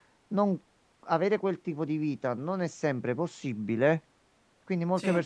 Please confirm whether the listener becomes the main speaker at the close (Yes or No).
No